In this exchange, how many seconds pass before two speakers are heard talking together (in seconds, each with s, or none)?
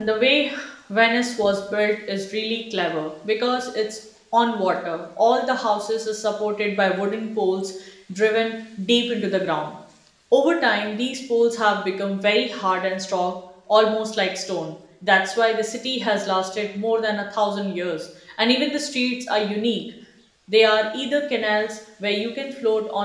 none